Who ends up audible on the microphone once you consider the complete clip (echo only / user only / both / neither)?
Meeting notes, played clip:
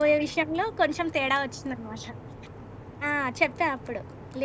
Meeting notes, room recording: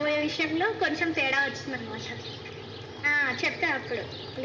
echo only